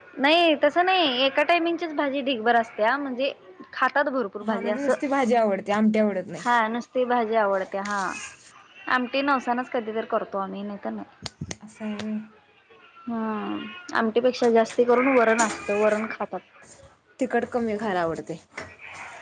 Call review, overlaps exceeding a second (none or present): none